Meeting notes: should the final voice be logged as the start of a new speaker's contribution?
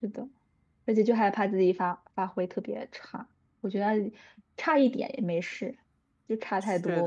Yes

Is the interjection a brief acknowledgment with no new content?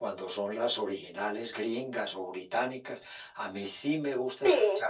Yes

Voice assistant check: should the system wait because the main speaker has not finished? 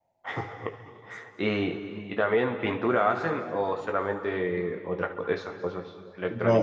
No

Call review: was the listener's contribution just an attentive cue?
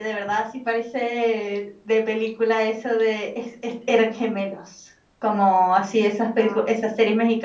Yes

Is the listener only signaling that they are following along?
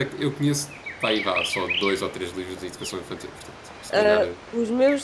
No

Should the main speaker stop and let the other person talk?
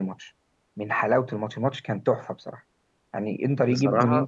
No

